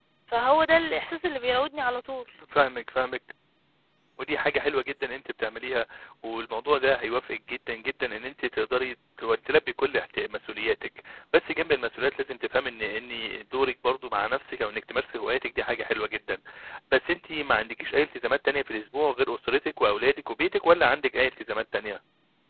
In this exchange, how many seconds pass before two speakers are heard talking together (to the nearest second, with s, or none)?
none